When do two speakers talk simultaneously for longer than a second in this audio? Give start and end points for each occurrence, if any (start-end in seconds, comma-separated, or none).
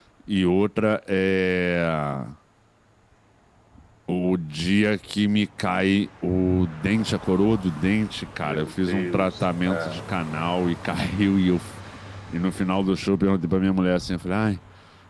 8.4-10.0